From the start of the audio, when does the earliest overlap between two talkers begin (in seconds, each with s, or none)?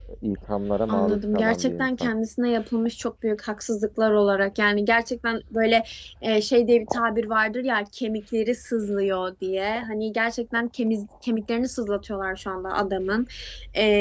0.9 s